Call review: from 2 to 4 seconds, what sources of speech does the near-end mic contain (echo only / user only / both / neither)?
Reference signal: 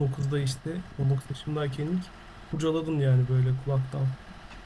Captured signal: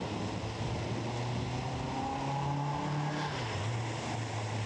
neither